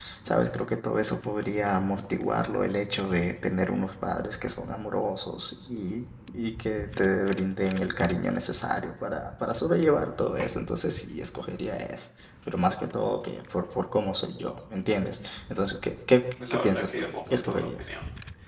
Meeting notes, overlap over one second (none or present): present